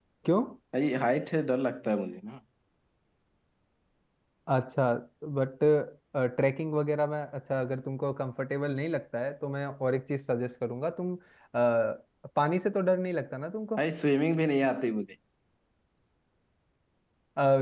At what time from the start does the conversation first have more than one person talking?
none

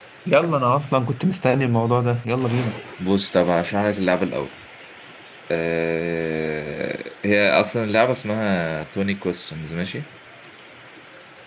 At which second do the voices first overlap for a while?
none

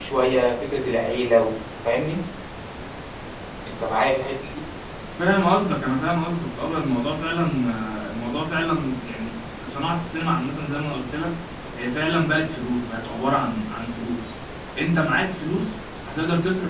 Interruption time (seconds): none

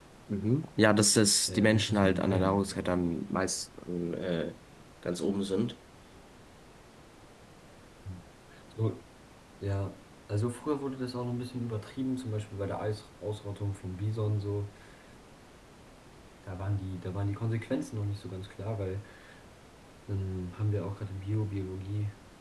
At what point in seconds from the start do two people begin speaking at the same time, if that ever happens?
1.5 s

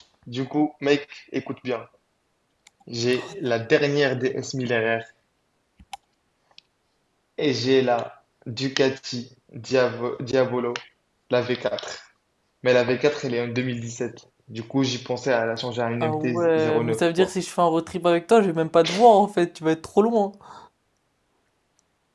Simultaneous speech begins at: 16.0 s

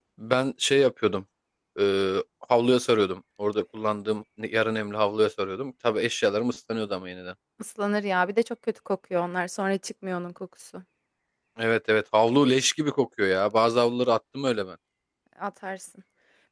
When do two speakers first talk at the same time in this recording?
none

